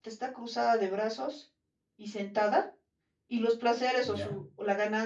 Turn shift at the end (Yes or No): No